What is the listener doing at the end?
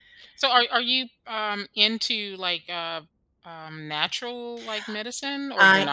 taking over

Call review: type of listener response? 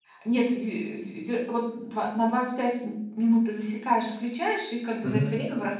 listening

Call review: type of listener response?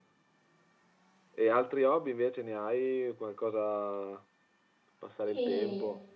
taking over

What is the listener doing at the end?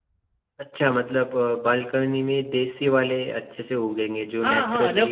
taking over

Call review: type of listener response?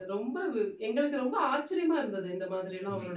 taking over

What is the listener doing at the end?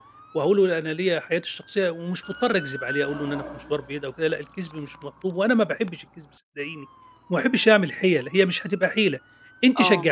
listening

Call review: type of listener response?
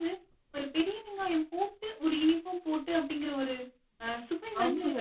taking over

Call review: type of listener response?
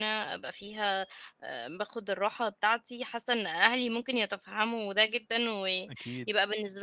listening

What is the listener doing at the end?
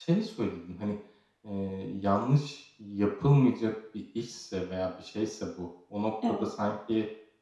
listening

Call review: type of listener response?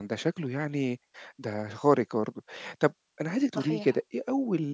listening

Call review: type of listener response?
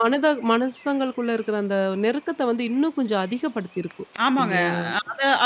taking over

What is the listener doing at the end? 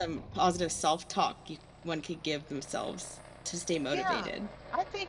taking over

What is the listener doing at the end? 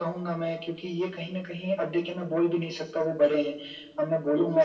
listening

